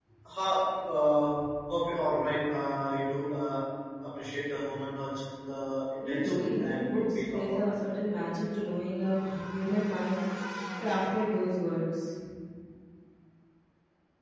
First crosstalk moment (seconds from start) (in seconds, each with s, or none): 6.0 s